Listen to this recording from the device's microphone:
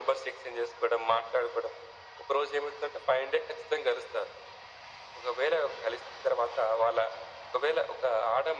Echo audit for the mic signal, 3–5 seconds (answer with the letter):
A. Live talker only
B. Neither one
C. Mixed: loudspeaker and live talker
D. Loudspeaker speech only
D